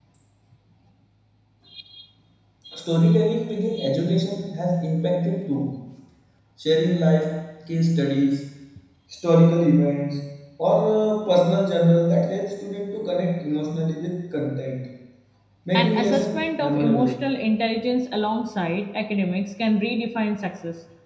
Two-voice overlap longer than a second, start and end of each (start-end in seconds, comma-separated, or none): 15.8-17.2